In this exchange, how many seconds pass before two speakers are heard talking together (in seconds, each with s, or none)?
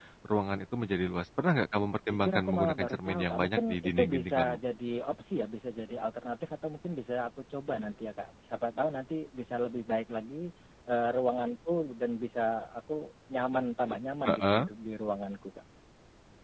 2.1 s